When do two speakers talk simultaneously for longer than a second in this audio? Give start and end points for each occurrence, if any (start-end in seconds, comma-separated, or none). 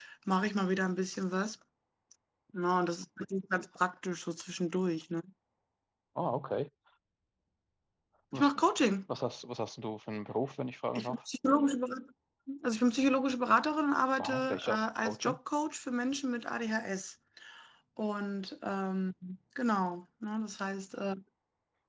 14.2-15.4